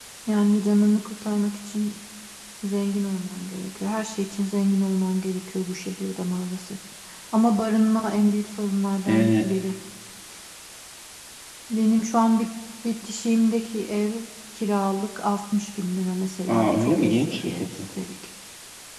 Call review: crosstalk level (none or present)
present